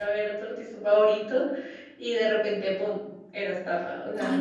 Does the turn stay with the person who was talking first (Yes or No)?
No